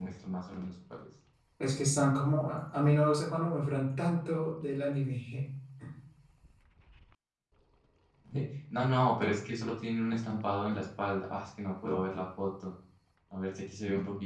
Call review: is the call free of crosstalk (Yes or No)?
Yes